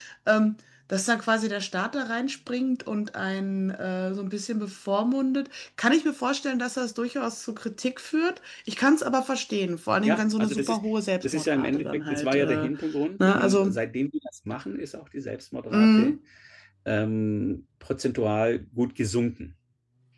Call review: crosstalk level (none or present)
present